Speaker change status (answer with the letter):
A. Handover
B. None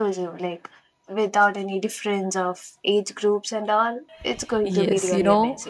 A